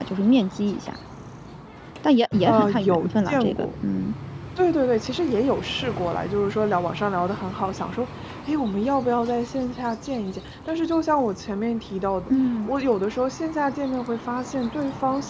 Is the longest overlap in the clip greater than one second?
Yes, from 2.5 s

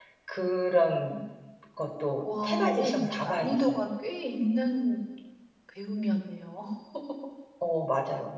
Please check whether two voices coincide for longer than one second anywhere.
Yes, from 2.2 s

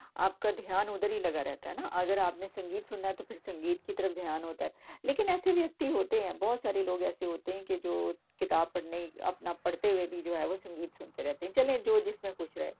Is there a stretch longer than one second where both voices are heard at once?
No

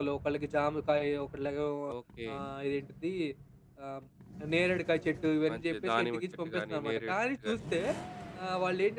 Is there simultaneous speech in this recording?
Yes, from 5.5 s

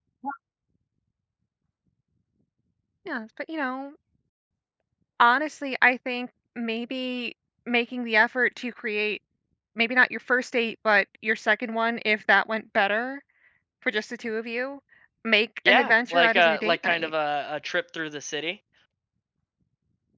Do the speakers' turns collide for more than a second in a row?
Yes, from 15.7 s

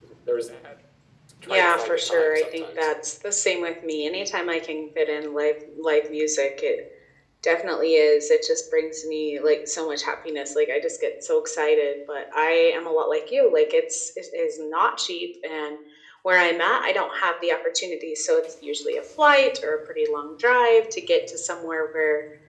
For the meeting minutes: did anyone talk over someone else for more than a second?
Yes, from 1.5 s

